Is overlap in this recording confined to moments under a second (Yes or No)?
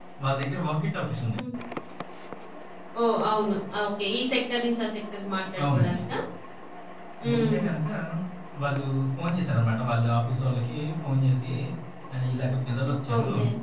Yes